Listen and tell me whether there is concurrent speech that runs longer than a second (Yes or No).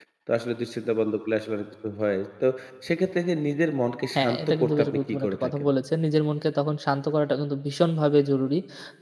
Yes